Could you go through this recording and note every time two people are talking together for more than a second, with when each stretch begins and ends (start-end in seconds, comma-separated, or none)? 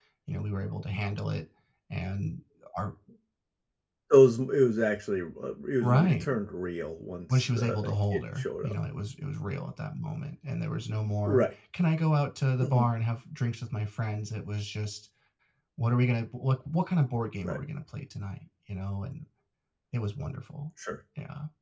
7.3-8.8